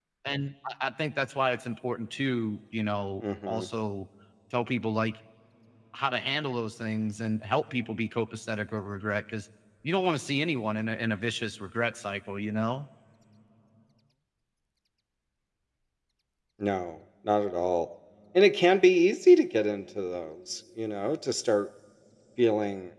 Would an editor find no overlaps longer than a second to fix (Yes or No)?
Yes